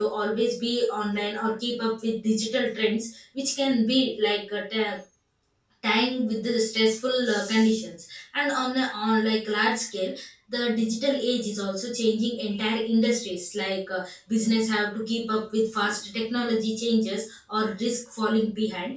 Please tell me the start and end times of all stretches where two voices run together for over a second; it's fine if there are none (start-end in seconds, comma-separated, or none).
none